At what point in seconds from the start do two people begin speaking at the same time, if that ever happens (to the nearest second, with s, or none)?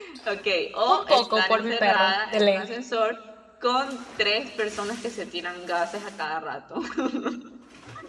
1 s